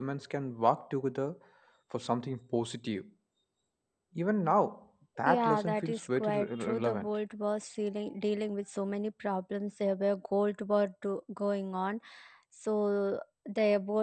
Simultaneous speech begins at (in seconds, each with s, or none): 5.3 s